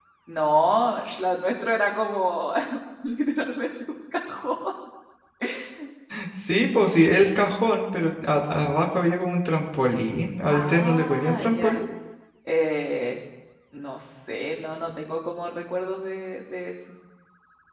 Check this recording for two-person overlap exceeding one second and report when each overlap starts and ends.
10.5-11.8

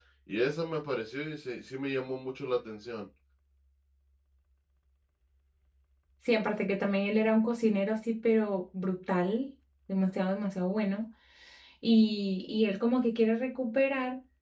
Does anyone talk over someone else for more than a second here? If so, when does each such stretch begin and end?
none

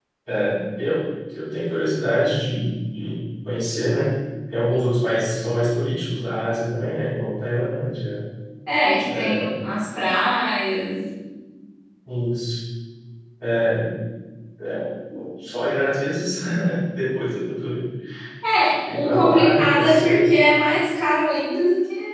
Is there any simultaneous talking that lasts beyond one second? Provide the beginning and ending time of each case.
18.9-20.3

